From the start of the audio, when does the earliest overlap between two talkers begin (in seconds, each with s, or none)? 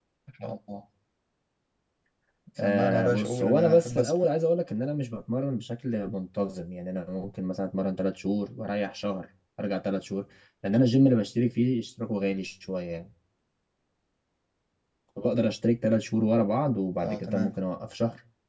2.6 s